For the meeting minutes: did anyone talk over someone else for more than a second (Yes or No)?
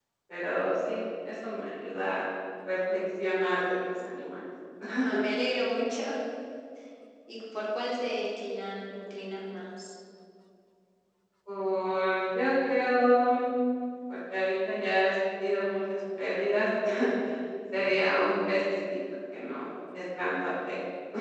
No